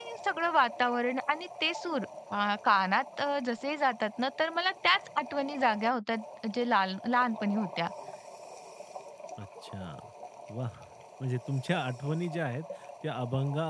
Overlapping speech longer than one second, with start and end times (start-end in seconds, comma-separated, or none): none